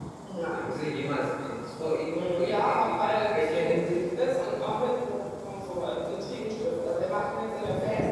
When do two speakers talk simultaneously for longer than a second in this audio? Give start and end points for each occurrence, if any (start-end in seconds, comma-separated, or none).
2.1-3.8